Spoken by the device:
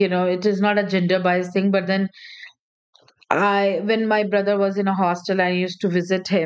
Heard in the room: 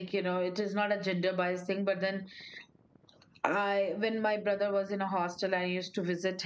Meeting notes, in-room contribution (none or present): none